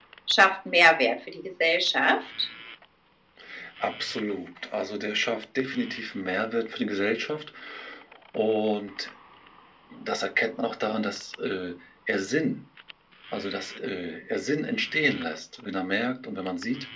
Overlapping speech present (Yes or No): No